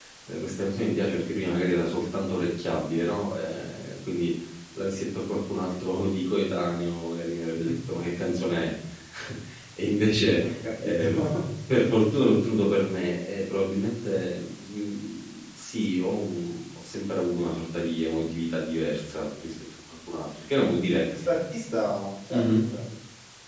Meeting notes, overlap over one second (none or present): none